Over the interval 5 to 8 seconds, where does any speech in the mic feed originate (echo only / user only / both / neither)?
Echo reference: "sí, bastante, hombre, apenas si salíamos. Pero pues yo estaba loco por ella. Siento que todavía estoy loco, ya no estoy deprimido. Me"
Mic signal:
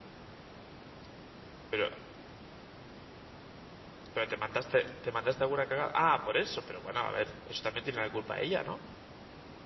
user only